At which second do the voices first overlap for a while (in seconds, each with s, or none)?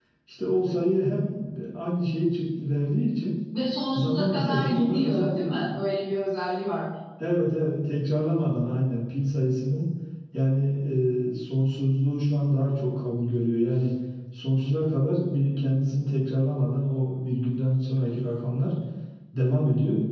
3.9 s